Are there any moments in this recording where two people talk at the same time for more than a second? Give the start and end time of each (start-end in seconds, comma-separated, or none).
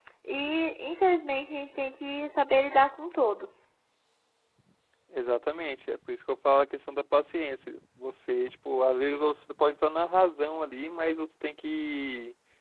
none